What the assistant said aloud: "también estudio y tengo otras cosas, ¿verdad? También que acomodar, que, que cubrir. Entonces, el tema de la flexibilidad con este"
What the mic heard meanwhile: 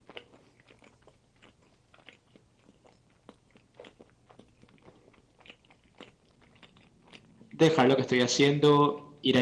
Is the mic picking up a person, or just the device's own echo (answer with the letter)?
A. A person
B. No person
A